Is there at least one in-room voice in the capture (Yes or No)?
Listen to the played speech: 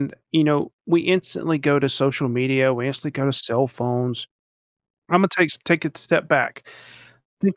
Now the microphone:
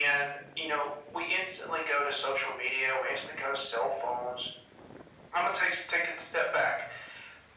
No